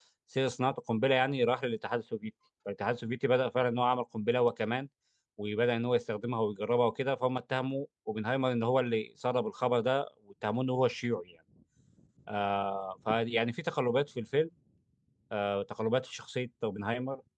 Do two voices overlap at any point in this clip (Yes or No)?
No